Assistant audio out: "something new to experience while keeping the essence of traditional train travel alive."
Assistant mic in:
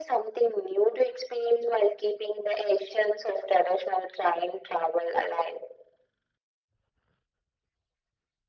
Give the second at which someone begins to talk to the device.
none

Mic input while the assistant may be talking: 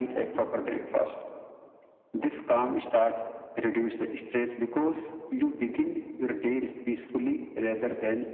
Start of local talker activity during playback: none

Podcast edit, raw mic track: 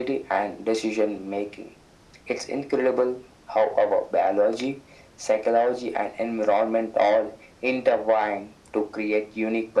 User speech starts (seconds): none

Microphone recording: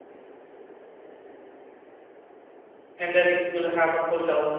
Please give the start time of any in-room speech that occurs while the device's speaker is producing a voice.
3 s

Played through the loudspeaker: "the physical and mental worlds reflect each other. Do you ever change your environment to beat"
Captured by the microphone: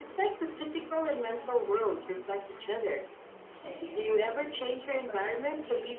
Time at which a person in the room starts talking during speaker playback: 4 s

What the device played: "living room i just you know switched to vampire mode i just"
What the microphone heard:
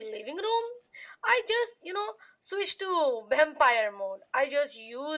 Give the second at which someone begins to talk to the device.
none

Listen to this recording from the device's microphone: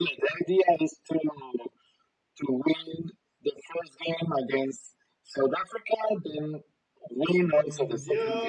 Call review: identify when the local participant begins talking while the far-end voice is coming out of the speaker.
7 s

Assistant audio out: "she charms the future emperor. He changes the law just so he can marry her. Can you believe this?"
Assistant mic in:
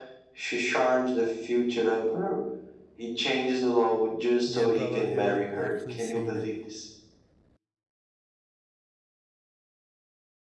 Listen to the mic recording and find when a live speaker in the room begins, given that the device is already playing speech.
4 s

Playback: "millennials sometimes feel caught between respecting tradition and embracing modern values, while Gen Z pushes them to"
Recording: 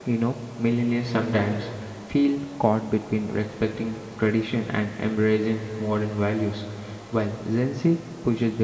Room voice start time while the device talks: none

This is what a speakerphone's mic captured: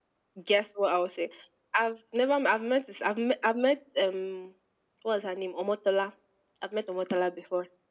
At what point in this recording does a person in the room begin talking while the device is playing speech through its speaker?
none

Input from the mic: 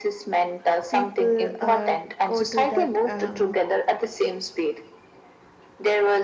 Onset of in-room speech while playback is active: 1 s

